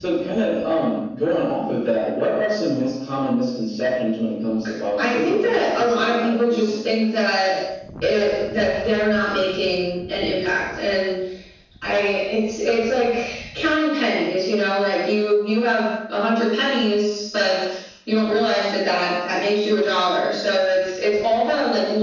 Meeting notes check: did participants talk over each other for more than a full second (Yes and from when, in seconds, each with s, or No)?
Yes, from 5.0 s